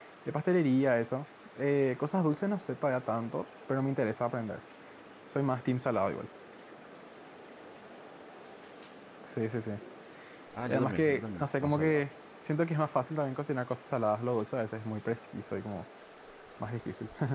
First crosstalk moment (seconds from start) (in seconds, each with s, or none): 10.7 s